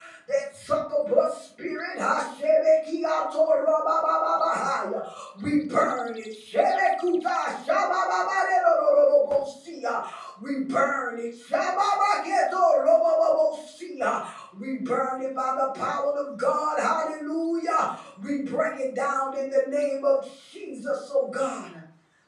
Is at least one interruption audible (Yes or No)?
No